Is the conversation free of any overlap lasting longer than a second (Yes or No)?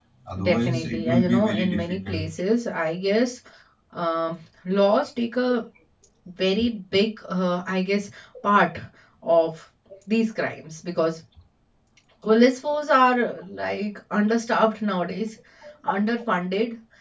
No